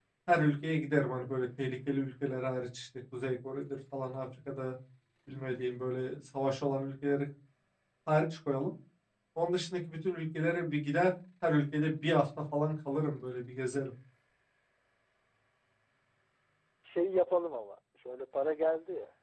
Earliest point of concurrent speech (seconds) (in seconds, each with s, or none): none